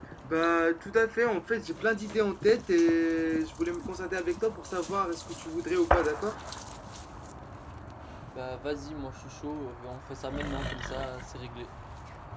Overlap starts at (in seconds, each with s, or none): none